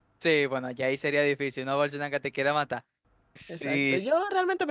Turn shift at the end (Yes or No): Yes